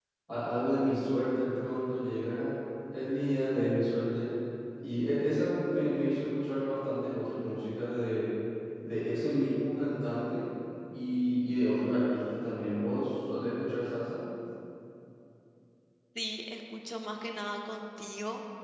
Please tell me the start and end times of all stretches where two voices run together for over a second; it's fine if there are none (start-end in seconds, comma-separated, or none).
none